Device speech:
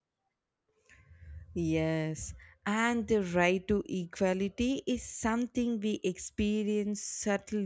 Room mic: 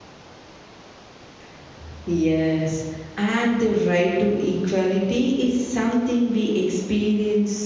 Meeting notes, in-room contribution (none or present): none